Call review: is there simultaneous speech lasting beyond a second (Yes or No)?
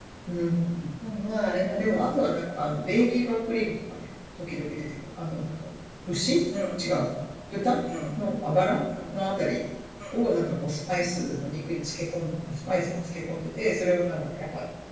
No